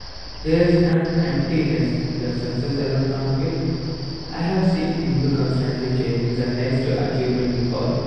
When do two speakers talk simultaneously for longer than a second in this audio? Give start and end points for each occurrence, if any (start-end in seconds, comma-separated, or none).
none